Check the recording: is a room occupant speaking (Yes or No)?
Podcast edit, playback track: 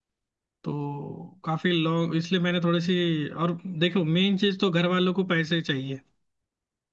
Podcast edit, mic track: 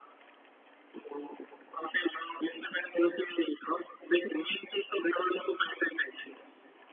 No